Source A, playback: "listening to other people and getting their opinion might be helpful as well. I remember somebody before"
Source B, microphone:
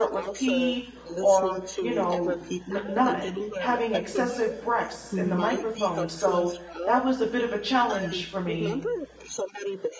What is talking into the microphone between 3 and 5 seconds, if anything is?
both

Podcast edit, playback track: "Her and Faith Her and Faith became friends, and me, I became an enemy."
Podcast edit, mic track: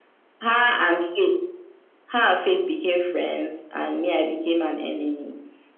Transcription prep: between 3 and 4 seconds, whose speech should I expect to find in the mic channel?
echo only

